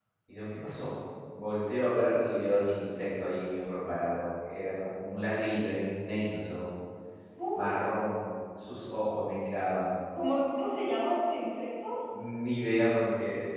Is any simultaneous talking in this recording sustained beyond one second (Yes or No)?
No